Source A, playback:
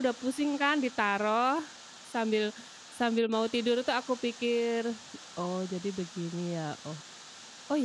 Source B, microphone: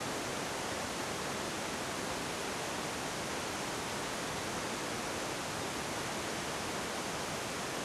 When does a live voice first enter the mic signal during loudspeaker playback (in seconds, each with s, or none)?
none